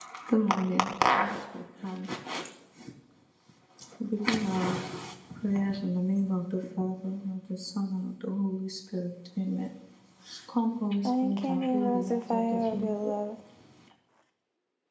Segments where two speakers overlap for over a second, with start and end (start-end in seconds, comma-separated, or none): 11.0-13.1